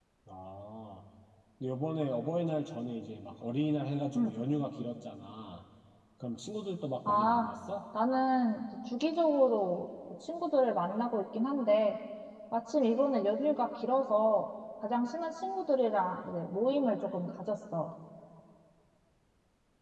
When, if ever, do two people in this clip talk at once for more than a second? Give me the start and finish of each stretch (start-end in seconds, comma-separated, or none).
none